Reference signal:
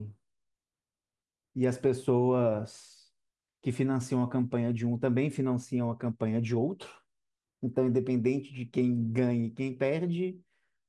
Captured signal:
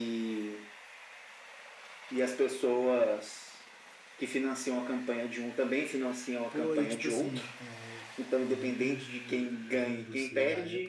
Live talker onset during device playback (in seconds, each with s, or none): 6.5 s